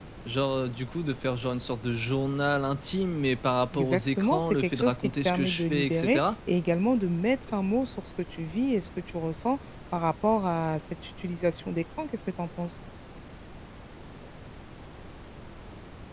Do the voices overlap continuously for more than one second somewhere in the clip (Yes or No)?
Yes